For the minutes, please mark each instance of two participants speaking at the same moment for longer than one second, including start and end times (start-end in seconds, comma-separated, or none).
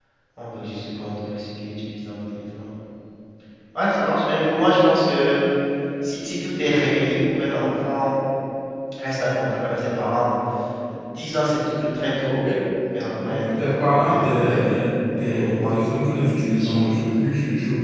13.3-14.6, 15.4-16.8